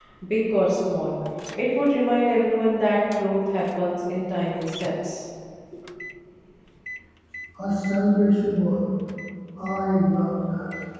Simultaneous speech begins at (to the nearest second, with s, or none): none